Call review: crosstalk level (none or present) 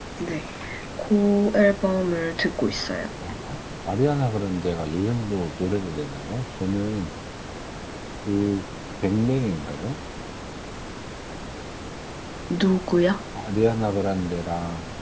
none